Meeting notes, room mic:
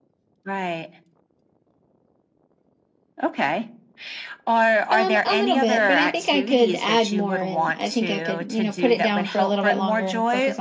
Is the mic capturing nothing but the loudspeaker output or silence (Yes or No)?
No